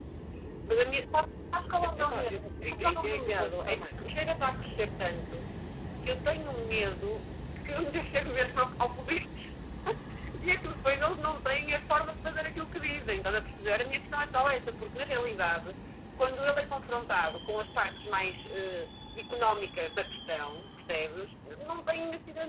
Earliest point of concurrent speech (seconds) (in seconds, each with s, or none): 1.8 s